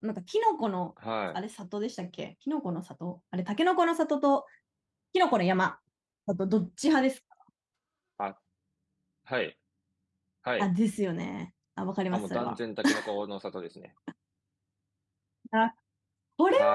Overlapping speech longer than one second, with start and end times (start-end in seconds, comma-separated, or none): none